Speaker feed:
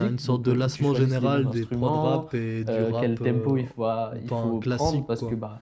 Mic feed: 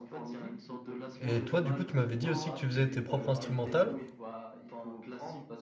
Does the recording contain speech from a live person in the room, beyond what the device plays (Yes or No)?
Yes